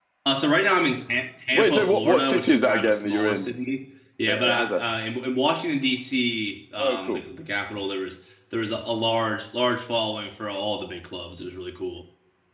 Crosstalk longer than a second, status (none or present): present